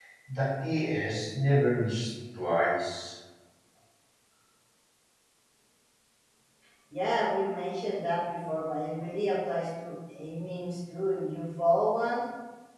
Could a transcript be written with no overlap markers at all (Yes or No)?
Yes